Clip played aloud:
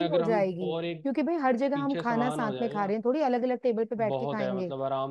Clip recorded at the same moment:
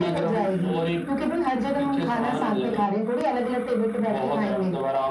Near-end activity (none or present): none